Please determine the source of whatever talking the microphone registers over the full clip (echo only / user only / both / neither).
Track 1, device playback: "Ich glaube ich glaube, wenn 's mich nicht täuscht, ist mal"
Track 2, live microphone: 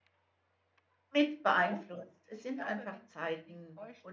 both